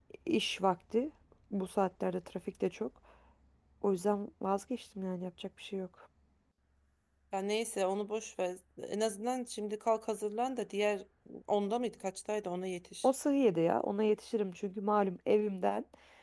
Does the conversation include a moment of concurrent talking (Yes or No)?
No